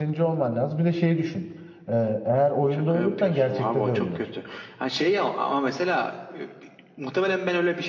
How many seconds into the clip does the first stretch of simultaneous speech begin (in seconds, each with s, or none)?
2.7 s